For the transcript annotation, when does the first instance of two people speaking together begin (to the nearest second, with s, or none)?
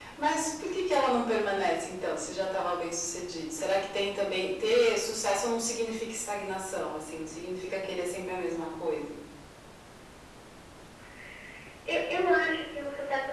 none